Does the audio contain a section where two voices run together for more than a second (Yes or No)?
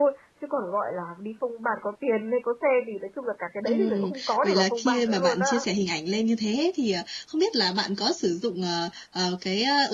Yes